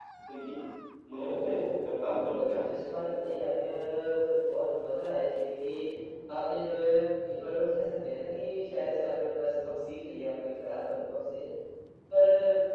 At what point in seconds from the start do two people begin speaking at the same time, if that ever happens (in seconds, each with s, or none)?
1.1 s